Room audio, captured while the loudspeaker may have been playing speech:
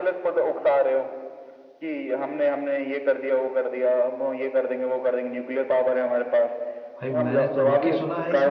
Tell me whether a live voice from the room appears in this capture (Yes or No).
Yes